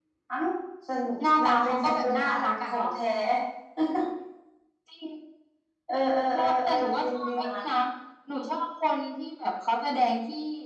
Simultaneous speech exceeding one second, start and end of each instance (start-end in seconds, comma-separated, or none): 1.4-2.9, 6.3-7.6